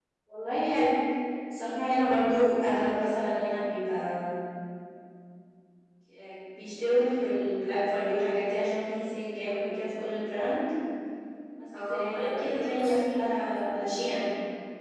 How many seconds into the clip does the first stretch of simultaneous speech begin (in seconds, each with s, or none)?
11.9 s